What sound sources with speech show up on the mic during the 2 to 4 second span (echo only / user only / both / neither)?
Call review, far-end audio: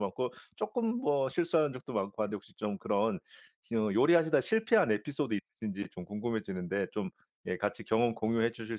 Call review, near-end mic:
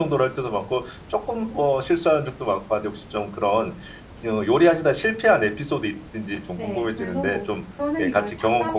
echo only